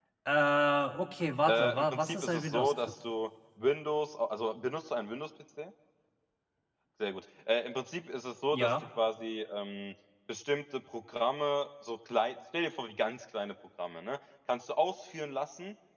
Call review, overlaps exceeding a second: present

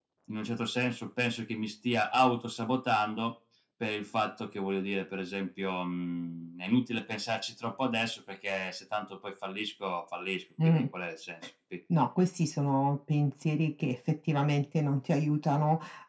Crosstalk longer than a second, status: none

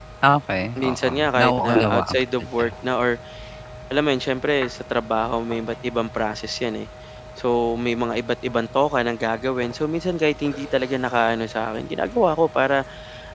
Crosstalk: present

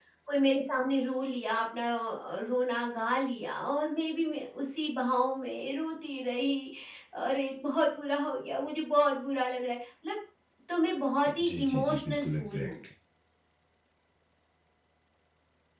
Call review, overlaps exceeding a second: present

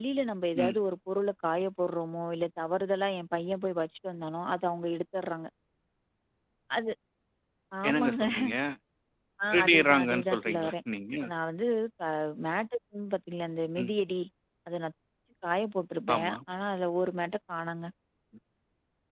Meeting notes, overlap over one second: present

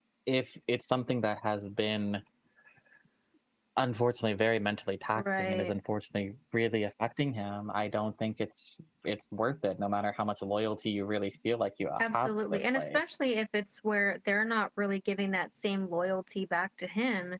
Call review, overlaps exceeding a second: present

